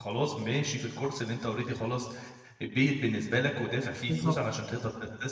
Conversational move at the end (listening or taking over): listening